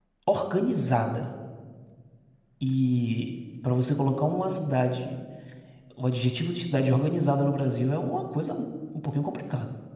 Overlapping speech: No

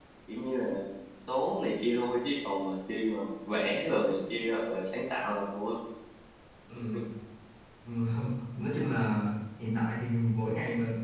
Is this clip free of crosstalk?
Yes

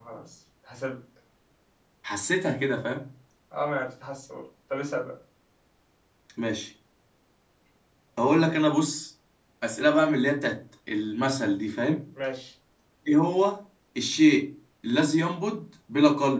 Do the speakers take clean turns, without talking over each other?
Yes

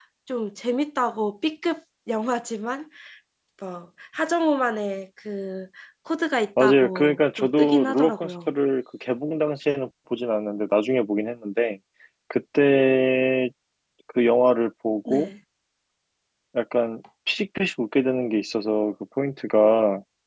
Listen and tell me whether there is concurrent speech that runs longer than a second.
Yes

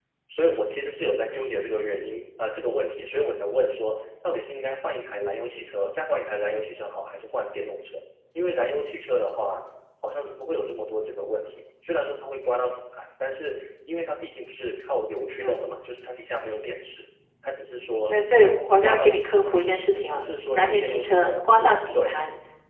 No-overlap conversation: No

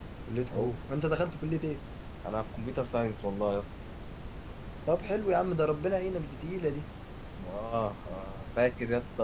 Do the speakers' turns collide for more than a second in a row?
No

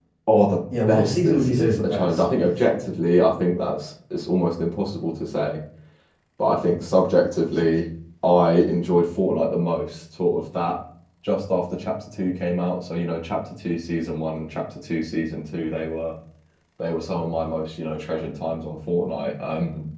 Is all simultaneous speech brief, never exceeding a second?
No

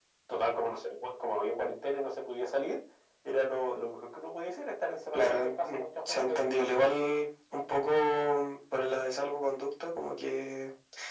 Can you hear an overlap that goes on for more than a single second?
Yes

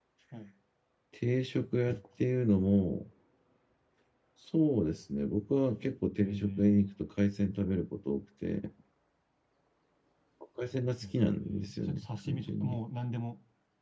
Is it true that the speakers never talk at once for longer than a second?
No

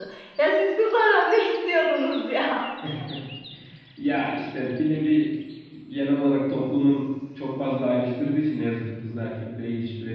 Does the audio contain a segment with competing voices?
No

